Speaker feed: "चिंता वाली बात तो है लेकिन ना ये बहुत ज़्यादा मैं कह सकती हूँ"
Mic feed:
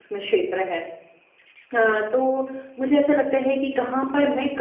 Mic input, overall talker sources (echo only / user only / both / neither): user only